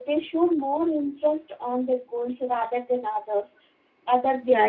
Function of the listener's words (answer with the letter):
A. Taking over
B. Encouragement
A